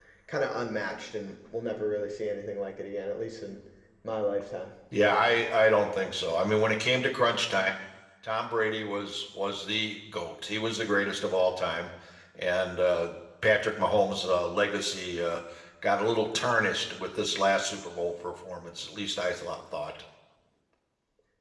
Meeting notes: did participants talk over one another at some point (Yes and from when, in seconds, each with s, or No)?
No